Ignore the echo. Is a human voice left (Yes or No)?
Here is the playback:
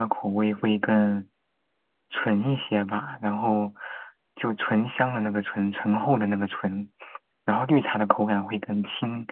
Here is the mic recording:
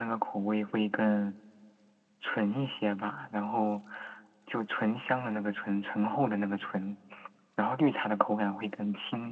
No